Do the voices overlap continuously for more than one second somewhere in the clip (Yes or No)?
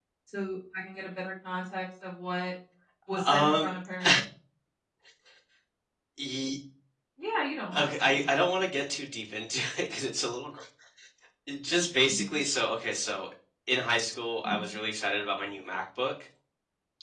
No